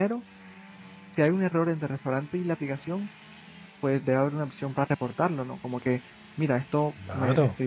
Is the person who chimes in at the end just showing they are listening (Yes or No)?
Yes